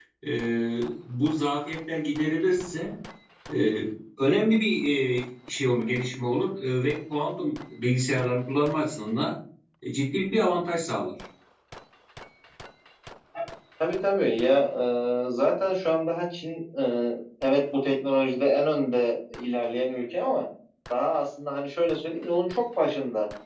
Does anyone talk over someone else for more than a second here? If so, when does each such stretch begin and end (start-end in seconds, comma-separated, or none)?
none